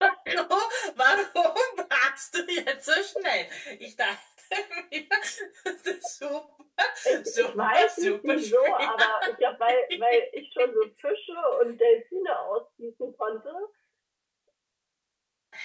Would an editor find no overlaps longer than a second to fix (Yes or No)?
No